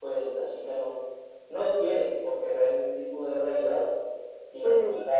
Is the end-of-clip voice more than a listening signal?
No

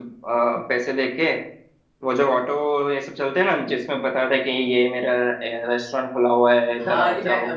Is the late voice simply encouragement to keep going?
No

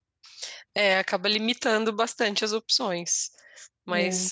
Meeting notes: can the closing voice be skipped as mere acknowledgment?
Yes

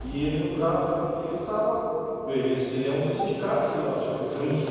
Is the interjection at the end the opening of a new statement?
No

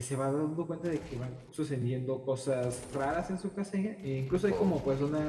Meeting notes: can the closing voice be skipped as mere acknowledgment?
Yes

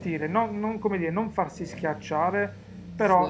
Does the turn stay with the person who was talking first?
Yes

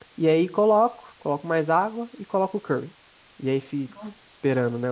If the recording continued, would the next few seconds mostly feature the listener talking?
No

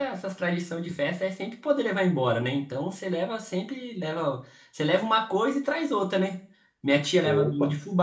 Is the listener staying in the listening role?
Yes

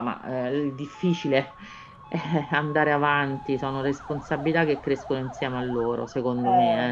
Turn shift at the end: Yes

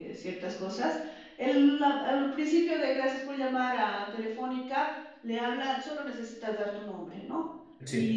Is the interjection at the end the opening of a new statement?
No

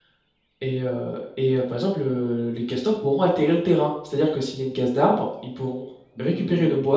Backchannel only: No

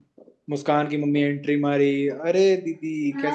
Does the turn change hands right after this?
Yes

